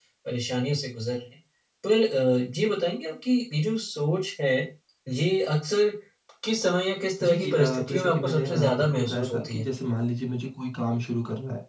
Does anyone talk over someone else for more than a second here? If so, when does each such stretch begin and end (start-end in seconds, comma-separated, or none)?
7.2-9.7